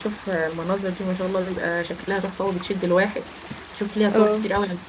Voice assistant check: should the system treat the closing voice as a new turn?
No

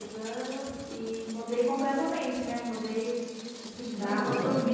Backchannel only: Yes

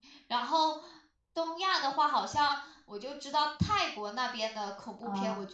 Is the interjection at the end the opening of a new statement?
No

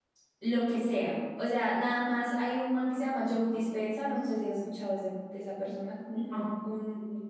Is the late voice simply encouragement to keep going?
Yes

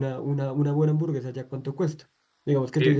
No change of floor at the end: Yes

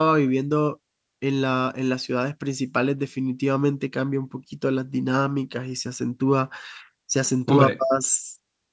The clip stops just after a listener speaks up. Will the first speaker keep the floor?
Yes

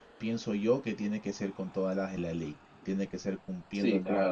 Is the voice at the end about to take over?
Yes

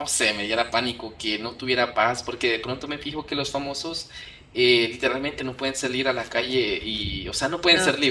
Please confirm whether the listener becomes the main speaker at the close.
No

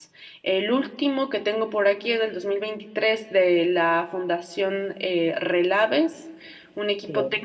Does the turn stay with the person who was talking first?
Yes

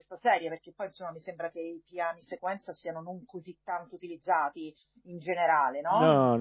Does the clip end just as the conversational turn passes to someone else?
Yes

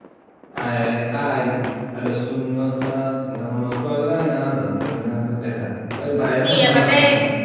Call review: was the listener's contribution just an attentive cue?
No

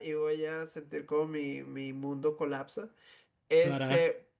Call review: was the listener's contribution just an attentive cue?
Yes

